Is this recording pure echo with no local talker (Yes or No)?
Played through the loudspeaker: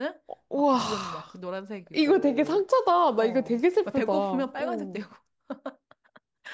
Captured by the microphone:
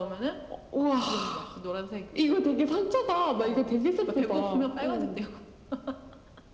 Yes